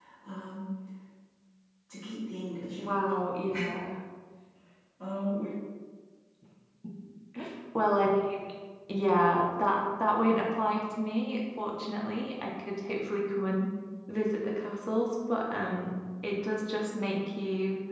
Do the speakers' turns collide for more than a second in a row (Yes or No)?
No